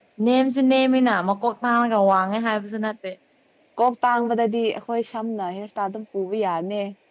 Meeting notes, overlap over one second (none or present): none